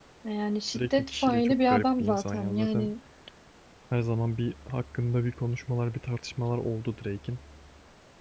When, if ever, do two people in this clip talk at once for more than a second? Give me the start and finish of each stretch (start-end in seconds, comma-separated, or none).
0.8-2.9